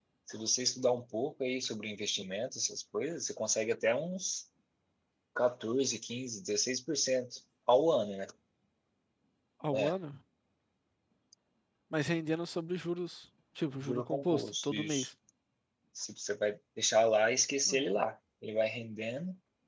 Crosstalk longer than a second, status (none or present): present